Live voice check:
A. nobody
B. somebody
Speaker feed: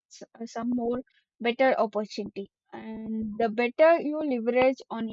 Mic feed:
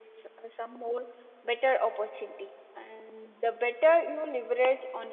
A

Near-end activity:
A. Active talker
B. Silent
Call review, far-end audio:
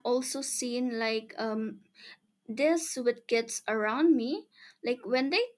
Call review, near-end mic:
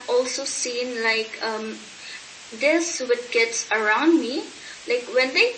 B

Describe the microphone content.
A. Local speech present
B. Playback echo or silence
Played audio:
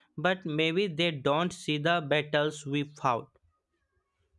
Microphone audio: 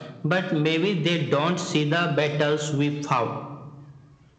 B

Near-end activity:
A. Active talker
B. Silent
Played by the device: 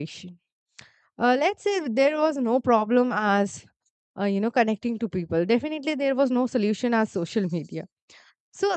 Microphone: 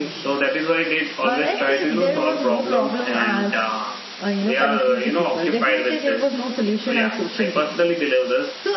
A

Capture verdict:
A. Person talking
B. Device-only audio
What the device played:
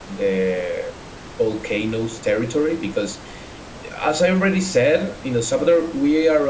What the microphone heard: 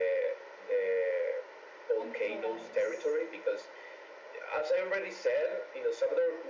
A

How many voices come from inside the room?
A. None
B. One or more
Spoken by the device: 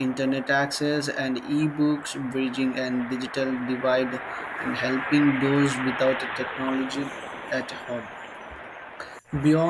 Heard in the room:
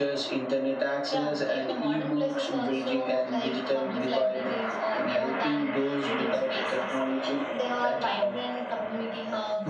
B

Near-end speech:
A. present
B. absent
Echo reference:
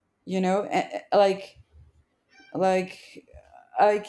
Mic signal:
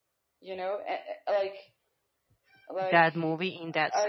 A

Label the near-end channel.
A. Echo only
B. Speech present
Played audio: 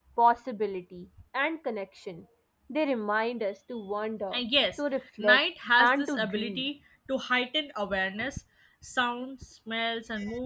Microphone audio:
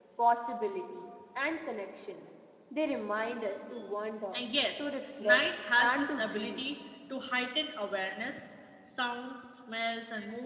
A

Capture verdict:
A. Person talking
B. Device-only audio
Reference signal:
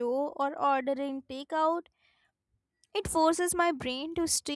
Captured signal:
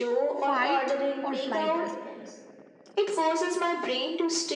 A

